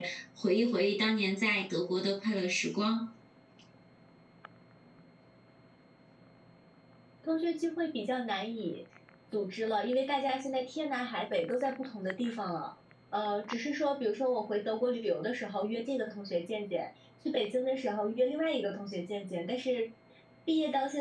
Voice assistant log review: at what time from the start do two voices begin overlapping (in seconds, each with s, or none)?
none